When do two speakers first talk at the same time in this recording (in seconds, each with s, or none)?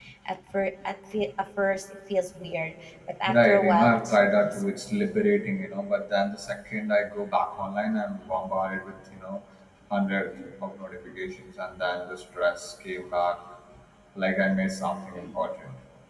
3.3 s